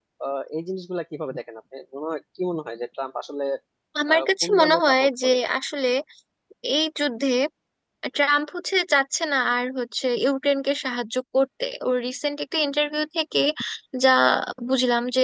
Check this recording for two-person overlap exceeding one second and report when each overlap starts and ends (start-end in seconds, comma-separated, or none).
4.1-5.4